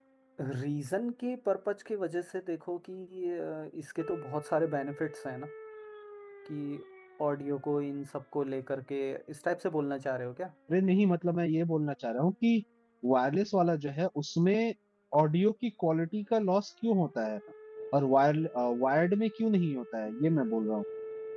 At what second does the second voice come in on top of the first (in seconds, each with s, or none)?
none